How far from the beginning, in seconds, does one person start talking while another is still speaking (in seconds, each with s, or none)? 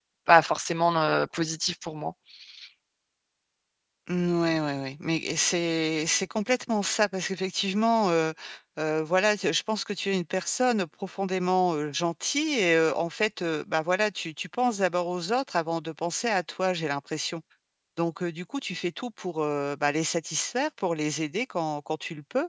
none